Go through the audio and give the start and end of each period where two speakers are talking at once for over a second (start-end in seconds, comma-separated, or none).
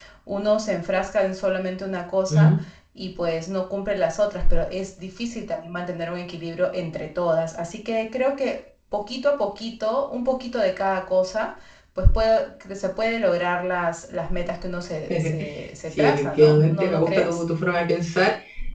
15.9-17.4